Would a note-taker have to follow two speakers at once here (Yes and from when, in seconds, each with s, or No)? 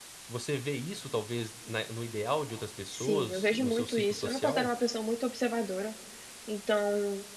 Yes, from 2.9 s